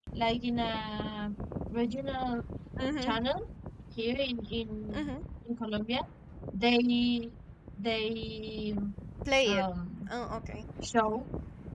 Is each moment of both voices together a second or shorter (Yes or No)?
Yes